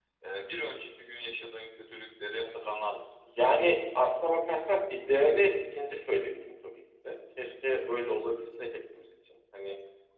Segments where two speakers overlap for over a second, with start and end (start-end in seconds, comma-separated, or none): none